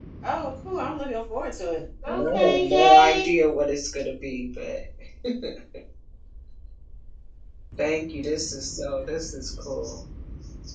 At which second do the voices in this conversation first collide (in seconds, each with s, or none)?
2.0 s